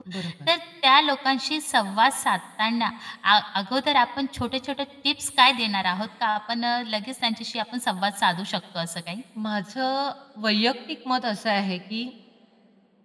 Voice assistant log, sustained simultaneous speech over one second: none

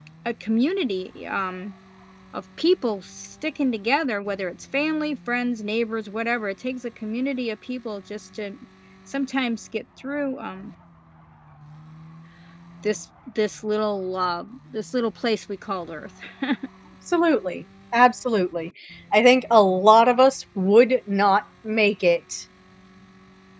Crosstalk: none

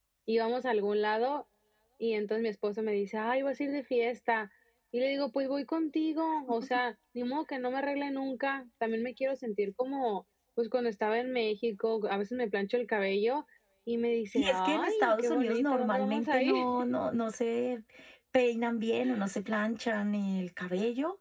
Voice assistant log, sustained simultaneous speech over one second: present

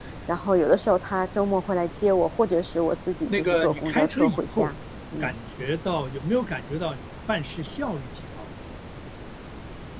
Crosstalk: present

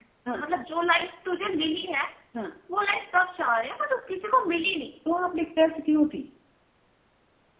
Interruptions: none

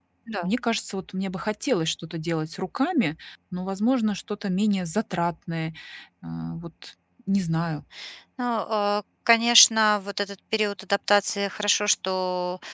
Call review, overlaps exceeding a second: none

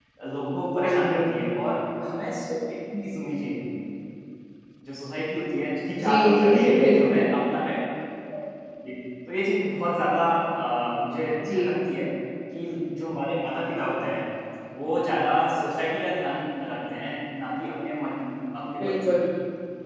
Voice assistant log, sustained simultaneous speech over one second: present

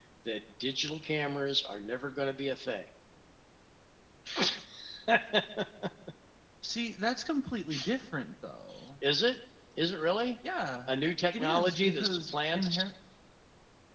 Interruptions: present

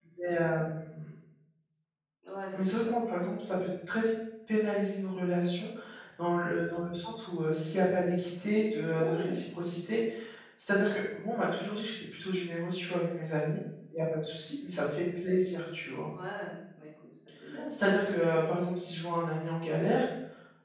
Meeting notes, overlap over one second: none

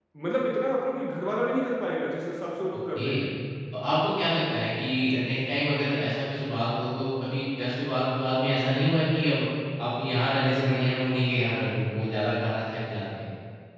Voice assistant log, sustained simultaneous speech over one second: none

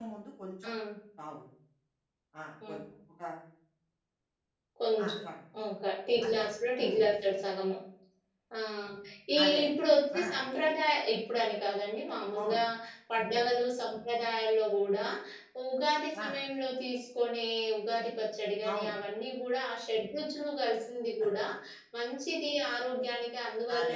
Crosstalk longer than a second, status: none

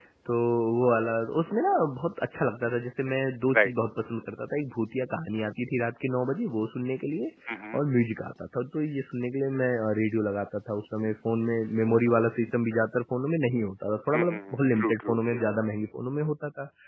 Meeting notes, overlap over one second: present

